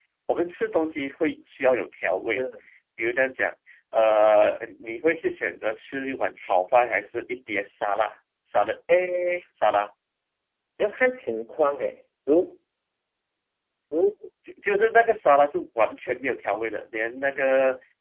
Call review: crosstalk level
none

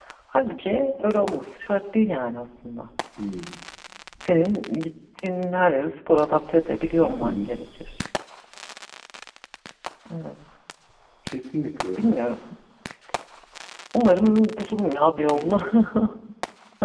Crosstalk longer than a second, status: none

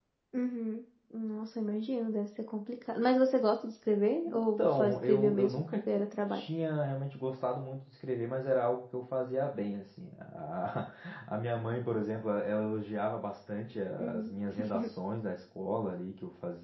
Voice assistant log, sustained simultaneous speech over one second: present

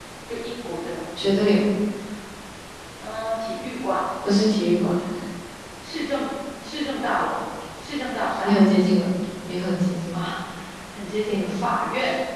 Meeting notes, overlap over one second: none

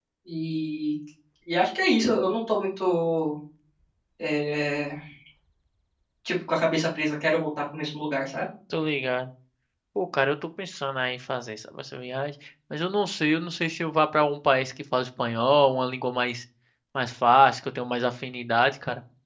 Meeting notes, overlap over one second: none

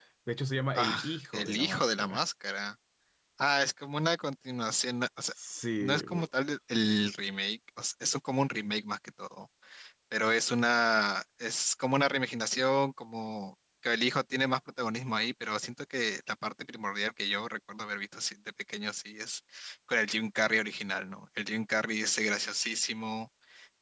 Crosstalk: present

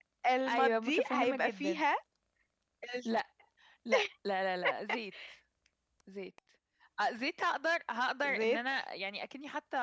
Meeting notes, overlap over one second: present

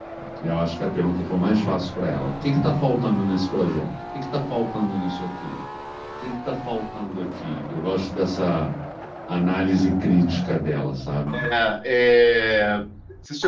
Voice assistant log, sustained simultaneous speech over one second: none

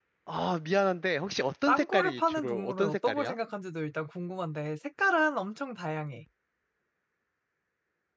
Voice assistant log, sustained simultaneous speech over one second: present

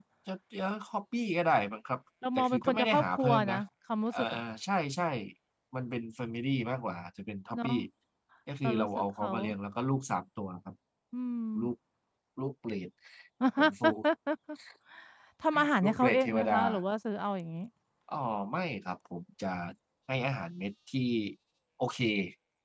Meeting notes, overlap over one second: present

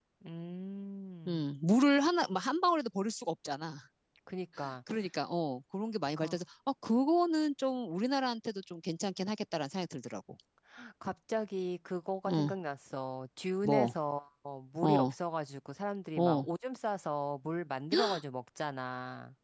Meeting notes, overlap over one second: none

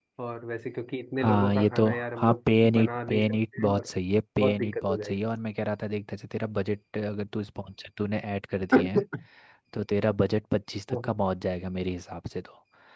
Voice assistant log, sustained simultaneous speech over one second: present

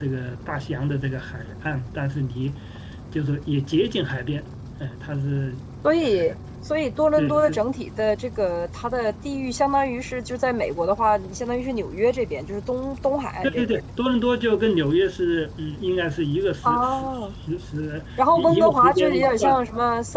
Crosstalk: present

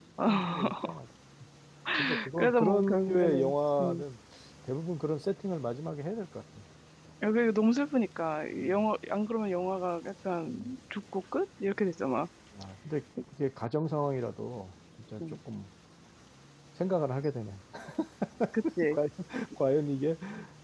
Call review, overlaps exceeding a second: present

